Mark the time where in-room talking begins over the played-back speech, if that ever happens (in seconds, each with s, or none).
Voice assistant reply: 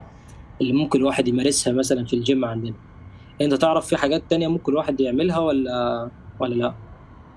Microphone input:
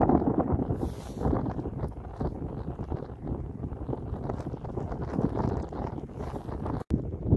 none